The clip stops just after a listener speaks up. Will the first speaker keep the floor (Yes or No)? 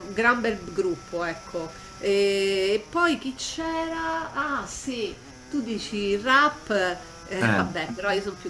Yes